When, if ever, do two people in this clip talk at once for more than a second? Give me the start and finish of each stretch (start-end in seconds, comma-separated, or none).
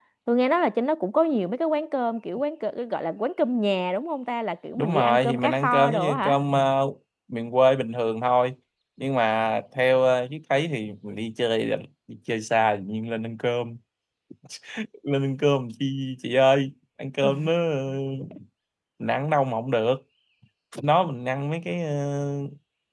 4.8-6.4